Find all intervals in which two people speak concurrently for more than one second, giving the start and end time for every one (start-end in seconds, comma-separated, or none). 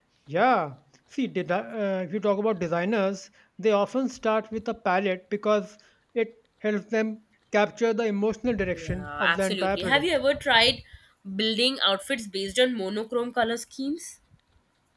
8.7-10.0